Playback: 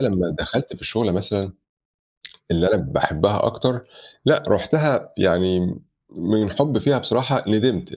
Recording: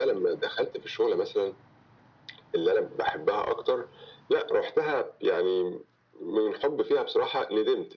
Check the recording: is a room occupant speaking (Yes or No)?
No